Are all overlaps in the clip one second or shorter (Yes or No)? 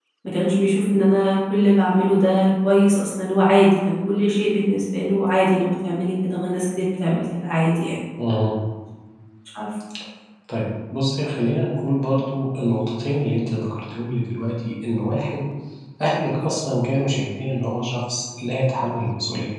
Yes